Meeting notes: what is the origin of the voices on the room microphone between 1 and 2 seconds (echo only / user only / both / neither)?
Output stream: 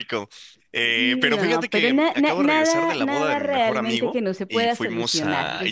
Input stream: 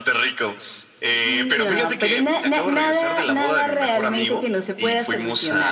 echo only